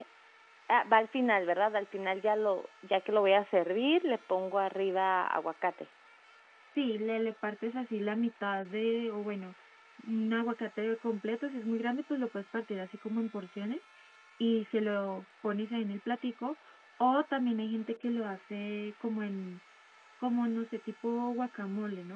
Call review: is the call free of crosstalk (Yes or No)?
Yes